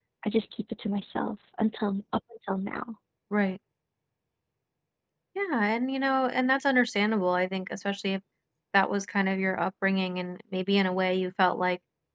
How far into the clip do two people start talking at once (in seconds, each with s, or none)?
none